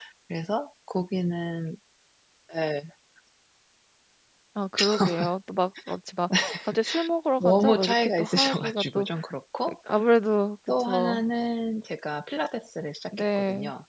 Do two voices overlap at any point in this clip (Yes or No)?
Yes